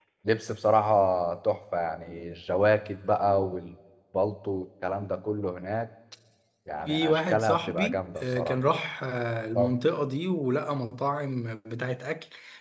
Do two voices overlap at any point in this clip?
Yes, from 6.9 s

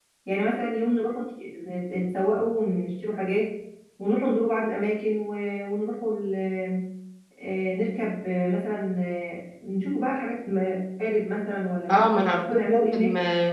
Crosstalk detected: Yes, from 11.9 s

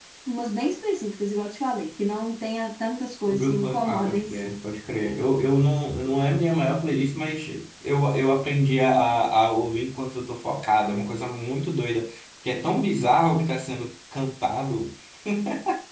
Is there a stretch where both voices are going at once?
Yes, from 3.3 s

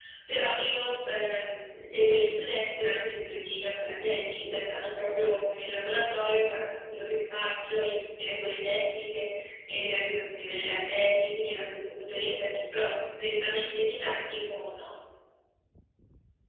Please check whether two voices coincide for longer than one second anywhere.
No

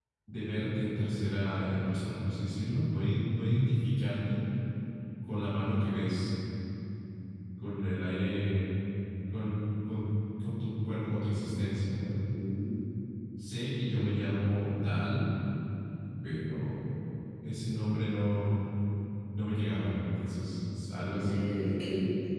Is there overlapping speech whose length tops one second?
No

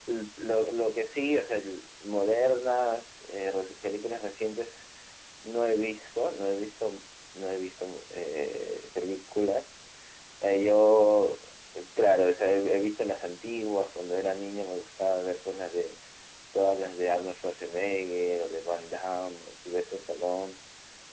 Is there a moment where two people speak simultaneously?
No

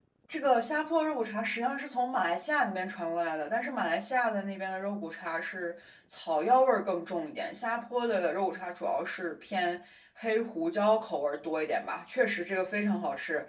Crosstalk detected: No

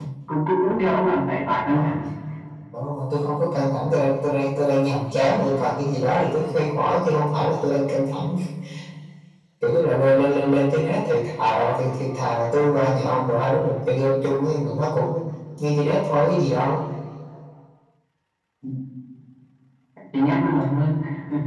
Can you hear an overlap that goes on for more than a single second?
No

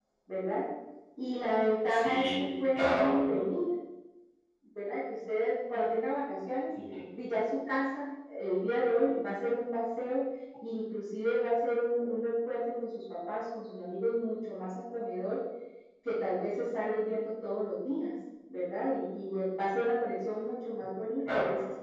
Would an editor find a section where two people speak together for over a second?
Yes, from 1.9 s

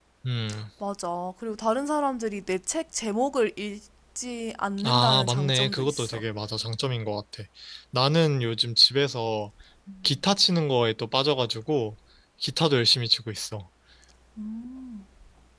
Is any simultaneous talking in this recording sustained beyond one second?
Yes, from 4.8 s

